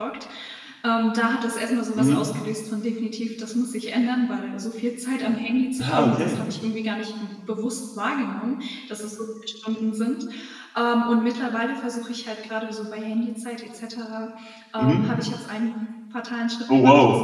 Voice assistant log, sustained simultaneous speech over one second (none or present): none